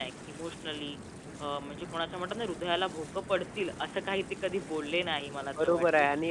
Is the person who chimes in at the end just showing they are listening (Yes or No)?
No